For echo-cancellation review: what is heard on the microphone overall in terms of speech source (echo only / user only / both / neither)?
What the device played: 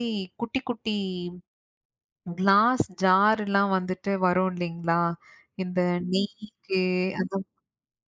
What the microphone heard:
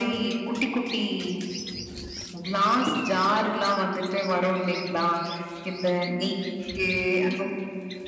echo only